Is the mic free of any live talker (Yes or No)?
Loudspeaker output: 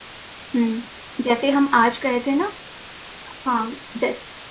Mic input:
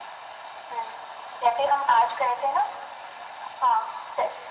Yes